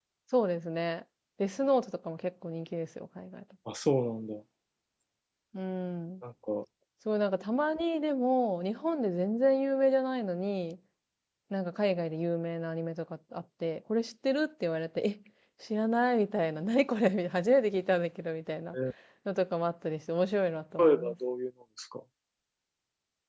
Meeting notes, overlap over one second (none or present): none